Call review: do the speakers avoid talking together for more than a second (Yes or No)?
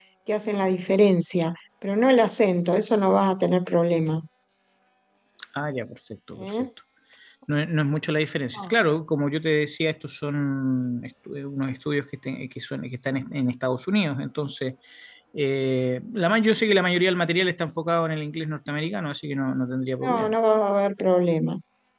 Yes